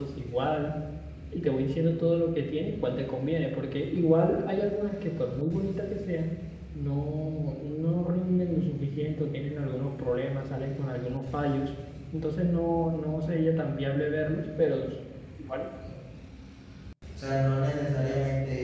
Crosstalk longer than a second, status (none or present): none